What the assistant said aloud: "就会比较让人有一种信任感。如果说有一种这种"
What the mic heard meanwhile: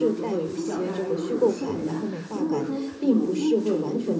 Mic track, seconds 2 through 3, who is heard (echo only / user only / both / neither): both